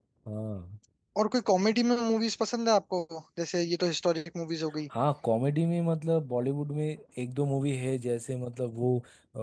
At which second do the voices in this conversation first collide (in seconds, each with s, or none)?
none